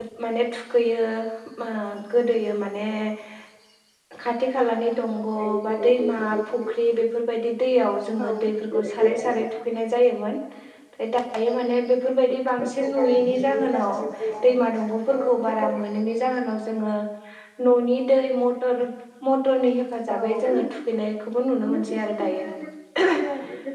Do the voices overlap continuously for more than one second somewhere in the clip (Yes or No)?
Yes